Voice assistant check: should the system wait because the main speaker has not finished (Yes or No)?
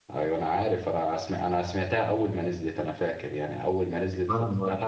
Yes